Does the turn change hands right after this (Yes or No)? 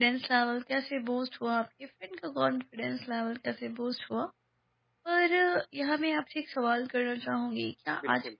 No